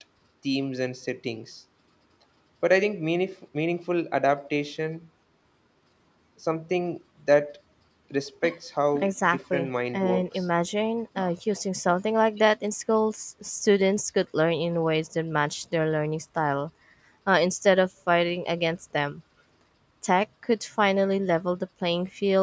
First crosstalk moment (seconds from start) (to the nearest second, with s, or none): 9 s